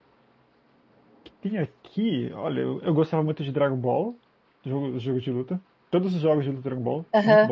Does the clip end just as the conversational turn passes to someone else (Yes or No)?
Yes